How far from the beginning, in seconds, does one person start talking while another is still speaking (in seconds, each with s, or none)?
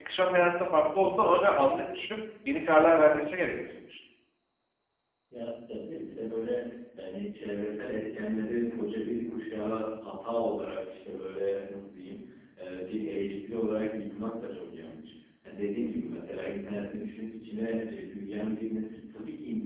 none